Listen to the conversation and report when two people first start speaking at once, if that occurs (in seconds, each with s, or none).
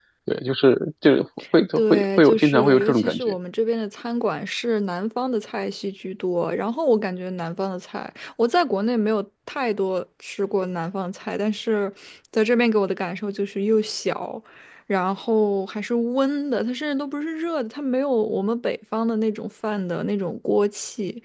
1.8 s